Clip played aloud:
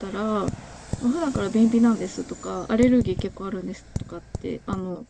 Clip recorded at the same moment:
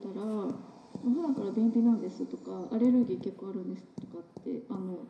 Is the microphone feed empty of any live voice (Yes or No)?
Yes